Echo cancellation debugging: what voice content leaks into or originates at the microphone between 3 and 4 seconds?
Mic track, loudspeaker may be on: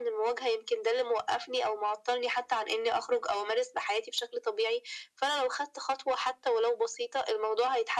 echo only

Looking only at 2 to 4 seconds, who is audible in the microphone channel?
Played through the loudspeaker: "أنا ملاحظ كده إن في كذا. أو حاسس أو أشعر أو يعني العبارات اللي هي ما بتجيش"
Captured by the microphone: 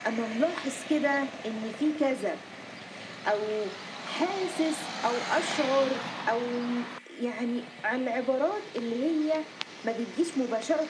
echo only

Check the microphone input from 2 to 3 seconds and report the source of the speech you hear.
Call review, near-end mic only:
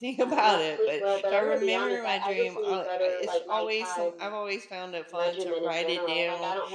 both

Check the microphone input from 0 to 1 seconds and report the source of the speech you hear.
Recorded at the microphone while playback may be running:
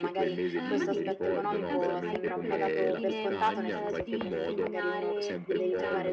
both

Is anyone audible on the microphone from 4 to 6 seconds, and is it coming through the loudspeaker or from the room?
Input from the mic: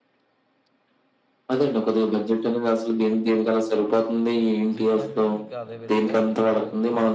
both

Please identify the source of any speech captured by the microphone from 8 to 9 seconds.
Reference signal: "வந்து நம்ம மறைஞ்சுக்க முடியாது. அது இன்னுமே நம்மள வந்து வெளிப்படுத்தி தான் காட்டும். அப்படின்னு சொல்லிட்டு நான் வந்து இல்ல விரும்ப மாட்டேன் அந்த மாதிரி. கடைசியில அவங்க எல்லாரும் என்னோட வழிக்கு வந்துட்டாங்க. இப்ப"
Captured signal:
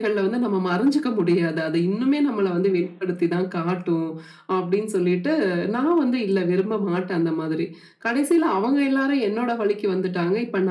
echo only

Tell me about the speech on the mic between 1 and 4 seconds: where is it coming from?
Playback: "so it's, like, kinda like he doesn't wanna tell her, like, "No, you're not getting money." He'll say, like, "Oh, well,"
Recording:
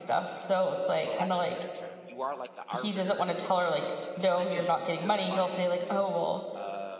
both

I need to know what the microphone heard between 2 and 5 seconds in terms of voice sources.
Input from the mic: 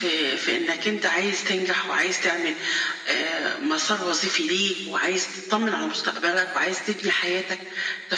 echo only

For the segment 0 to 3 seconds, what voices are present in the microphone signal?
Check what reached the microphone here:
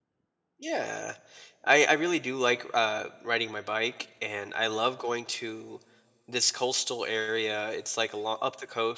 user only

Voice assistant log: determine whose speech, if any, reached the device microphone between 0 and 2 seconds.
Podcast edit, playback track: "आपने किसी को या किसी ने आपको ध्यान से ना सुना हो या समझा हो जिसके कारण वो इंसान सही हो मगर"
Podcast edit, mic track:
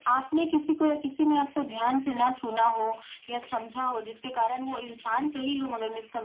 echo only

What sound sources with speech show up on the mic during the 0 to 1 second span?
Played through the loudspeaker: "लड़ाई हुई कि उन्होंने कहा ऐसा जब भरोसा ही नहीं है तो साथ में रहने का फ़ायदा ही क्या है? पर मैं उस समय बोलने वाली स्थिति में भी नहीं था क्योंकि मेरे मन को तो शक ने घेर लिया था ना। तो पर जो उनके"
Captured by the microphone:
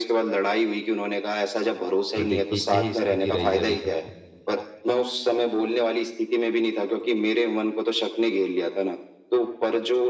echo only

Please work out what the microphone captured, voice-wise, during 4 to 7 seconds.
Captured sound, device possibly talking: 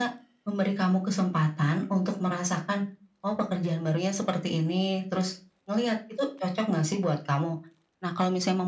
echo only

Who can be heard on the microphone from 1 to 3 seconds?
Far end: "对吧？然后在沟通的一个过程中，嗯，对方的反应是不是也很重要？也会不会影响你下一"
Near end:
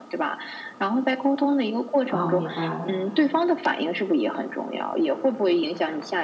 both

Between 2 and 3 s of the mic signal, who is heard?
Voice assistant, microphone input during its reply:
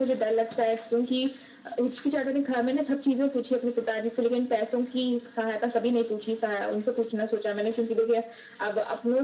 echo only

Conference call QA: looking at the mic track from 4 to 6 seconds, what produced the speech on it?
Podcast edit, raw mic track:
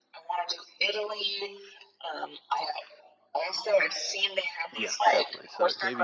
both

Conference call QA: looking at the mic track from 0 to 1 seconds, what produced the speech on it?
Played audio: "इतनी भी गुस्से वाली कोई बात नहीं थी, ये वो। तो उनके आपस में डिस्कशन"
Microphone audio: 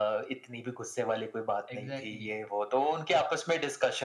echo only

